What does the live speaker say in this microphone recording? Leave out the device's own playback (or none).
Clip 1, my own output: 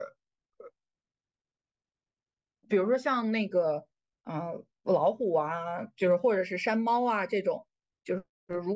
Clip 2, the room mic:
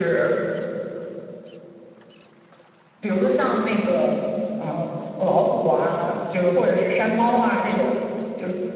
none